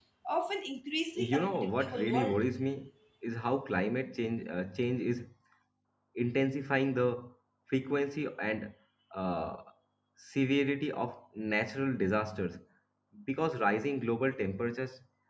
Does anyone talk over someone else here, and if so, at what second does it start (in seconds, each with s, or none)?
1.2 s